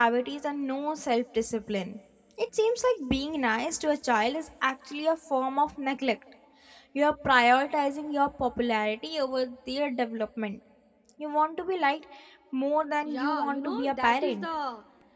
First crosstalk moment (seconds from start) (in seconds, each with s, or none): 13.1 s